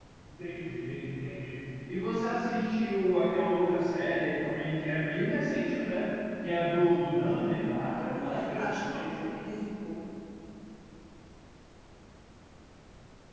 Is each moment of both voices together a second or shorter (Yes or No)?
No